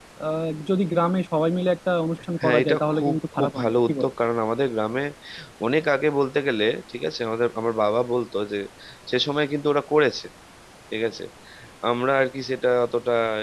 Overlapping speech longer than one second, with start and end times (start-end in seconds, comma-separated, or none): 2.4-4.0